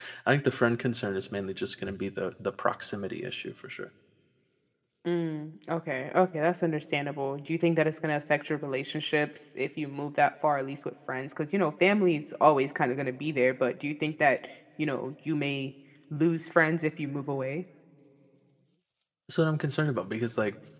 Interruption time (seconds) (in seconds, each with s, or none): none